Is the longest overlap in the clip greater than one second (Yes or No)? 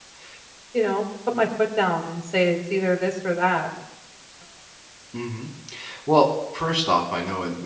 No